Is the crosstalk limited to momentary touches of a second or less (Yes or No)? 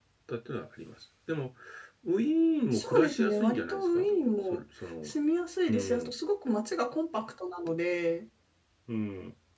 No